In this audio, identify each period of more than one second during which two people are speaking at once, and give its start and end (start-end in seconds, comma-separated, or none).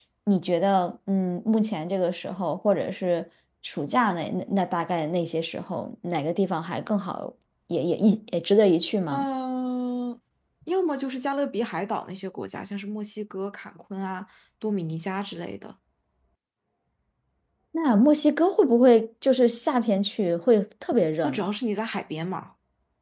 none